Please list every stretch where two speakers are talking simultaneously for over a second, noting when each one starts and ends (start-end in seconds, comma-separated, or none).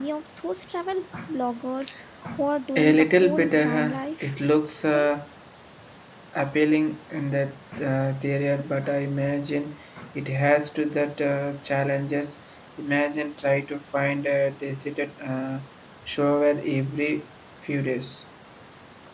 2.8-4.3